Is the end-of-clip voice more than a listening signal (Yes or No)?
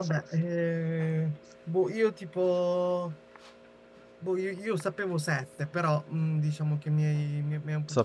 Yes